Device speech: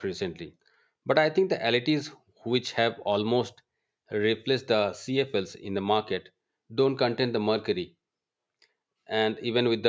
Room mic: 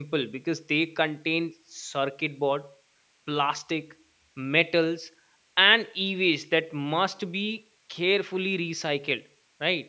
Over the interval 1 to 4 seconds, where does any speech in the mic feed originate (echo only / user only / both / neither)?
user only